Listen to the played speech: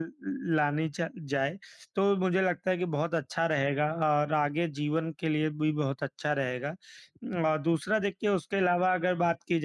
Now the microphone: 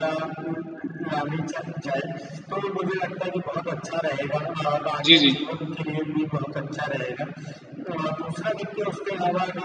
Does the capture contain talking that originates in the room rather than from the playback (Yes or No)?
Yes